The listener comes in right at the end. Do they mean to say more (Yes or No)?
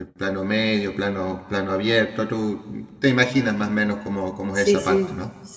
Yes